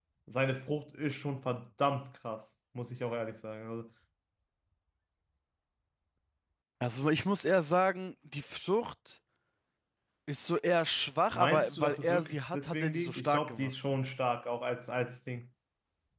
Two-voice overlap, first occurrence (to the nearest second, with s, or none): 11 s